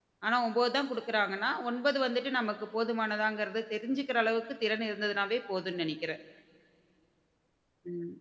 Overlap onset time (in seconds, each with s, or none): none